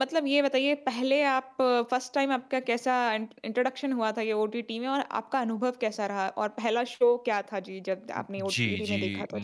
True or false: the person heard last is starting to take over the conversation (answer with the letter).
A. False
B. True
B